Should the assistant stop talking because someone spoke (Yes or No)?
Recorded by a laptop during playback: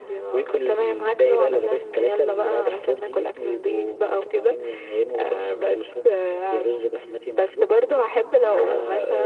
No